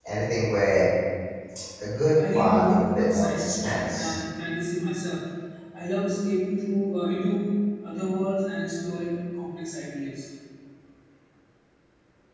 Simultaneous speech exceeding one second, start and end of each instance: 2.3-4.2

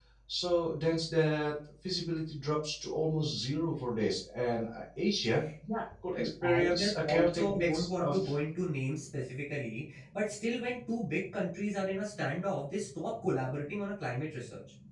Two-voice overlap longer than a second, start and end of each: 6.2-8.2

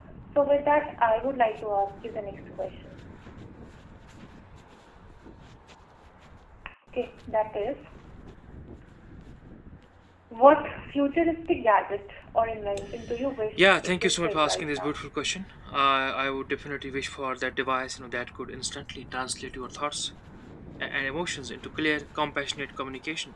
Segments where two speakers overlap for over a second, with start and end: 13.6-15.0

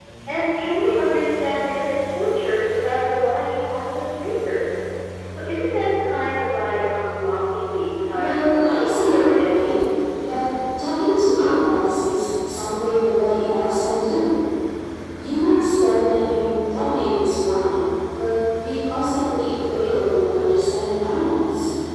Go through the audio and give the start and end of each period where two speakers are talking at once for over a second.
8.1-9.7

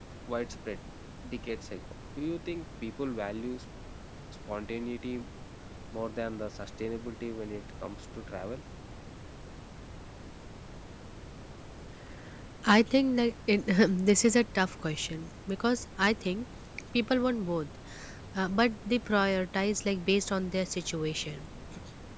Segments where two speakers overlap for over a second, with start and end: none

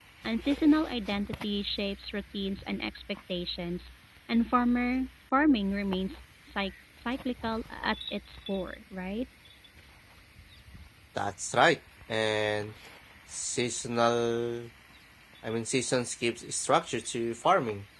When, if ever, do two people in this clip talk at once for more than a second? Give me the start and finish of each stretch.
none

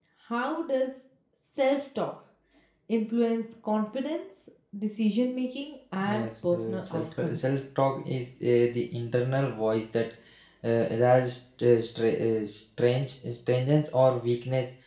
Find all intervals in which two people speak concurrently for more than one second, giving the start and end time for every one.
6.0-7.5

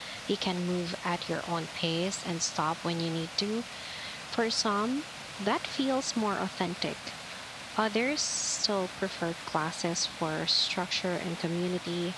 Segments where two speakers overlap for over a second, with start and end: none

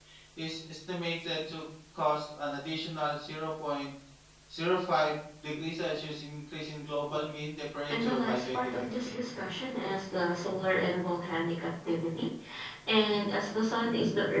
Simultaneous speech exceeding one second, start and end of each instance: 7.9-9.1

